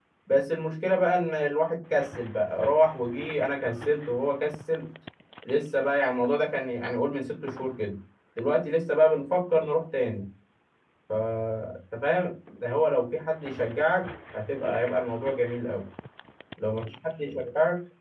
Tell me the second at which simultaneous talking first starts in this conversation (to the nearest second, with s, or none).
none